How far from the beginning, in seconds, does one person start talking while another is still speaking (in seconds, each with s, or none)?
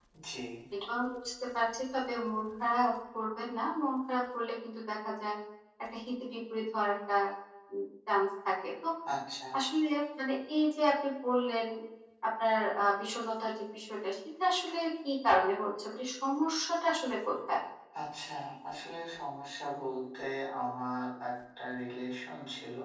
none